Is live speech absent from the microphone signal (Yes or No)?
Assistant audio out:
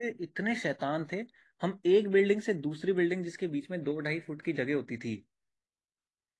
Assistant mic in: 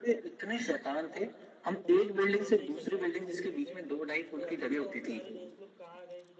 No